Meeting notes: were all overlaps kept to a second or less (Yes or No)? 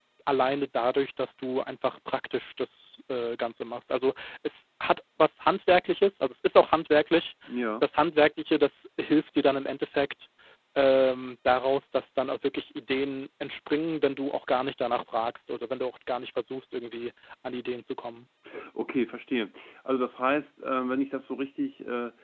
Yes